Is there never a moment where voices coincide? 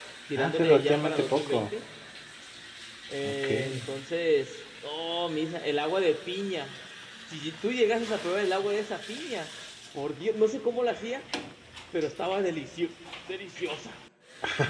No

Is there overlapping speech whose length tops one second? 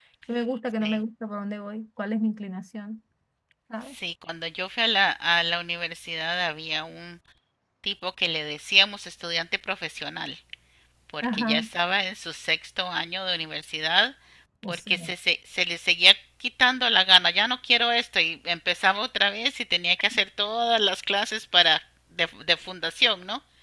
No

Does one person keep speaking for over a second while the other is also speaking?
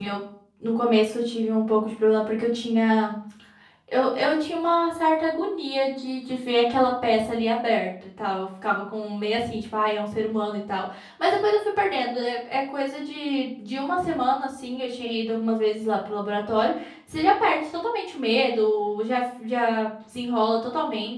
No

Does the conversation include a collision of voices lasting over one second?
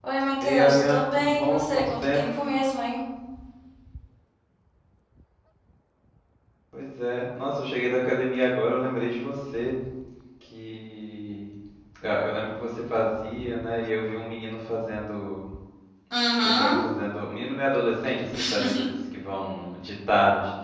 Yes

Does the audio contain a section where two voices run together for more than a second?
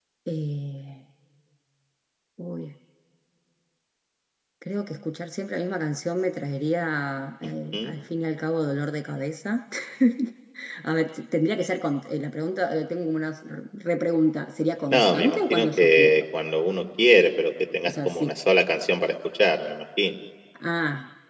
Yes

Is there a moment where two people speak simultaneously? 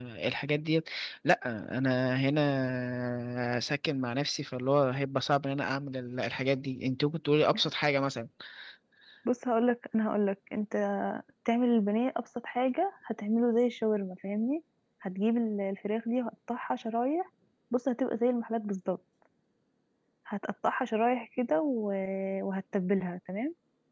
No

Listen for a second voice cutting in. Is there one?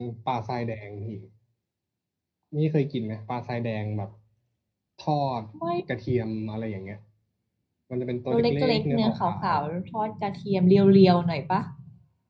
Yes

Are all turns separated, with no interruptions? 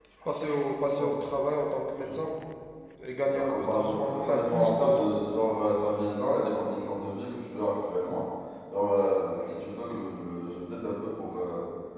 No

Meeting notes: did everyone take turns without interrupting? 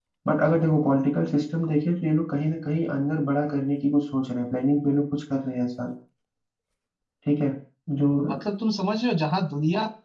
Yes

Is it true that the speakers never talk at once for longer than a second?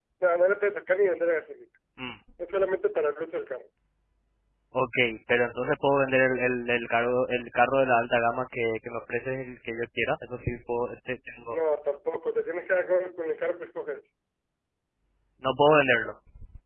Yes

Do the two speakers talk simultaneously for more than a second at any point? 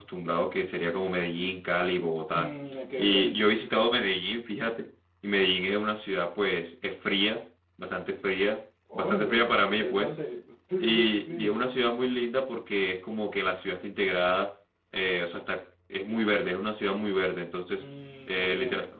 Yes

